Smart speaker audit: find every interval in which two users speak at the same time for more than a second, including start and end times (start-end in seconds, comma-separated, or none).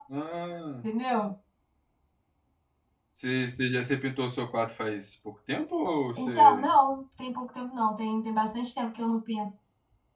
none